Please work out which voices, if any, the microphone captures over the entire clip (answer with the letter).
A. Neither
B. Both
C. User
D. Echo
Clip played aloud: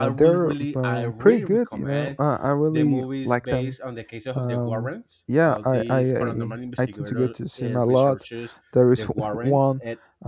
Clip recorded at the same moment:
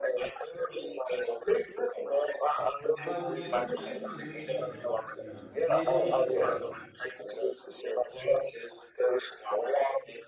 B